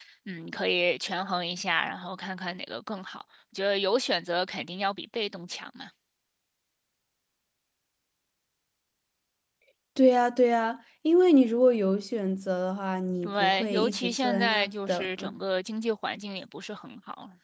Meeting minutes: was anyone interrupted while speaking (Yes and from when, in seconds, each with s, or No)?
Yes, from 13.2 s